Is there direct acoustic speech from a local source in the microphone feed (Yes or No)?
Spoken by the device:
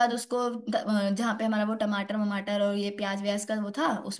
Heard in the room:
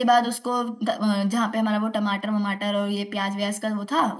No